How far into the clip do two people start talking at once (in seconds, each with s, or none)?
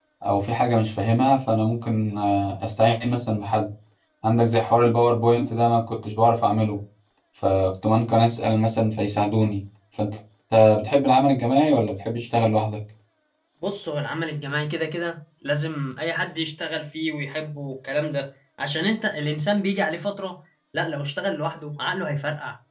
none